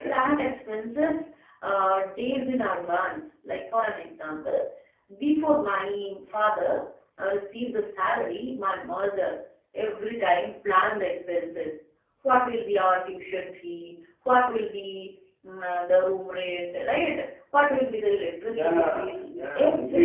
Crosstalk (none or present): present